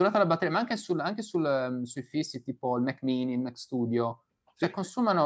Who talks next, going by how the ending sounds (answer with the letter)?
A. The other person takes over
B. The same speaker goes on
B